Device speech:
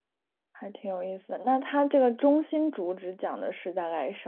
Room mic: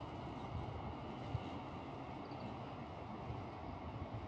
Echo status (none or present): none